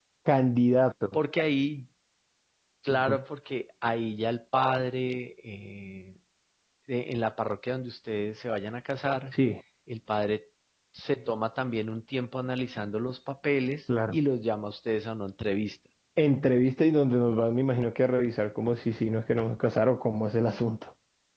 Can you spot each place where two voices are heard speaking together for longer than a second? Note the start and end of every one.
none

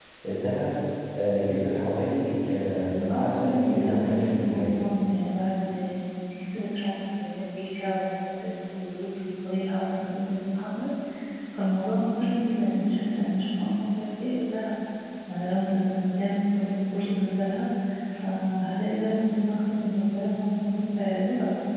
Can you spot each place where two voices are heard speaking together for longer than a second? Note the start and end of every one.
3.1-4.7

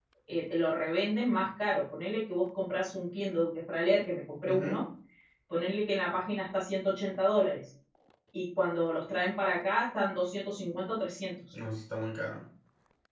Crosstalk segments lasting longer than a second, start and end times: none

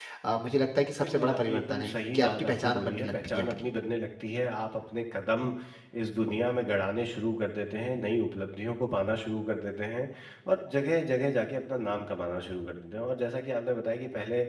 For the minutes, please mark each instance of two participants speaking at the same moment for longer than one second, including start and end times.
1.0-3.6

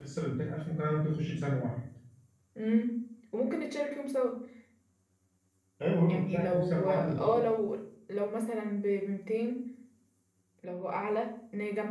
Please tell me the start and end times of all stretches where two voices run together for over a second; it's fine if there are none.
6.1-7.4

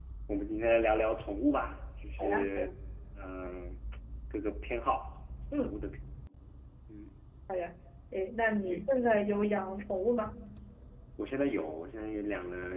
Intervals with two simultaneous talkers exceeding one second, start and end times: none

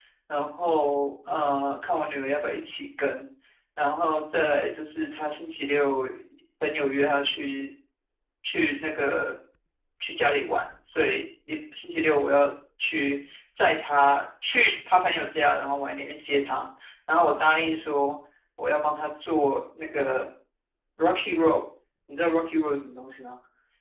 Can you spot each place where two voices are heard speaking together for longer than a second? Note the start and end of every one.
none

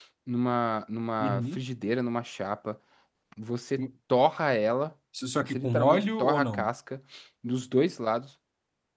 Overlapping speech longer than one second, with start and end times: 5.4-6.7

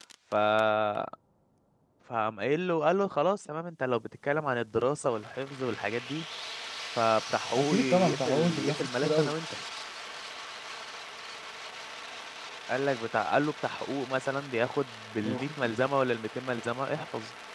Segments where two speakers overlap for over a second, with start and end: 7.6-9.3

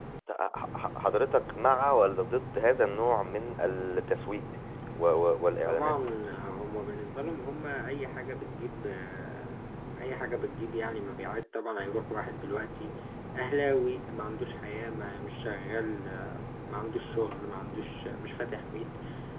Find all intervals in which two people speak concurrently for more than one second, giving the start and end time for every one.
none

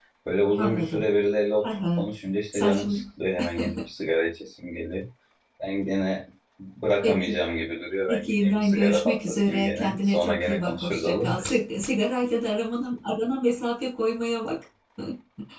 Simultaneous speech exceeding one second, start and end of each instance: 8.1-11.4

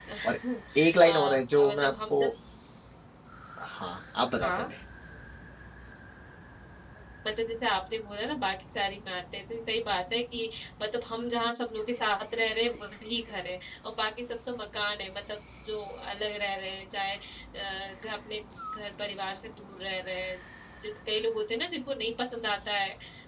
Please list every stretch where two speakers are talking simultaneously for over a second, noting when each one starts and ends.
1.0-2.3

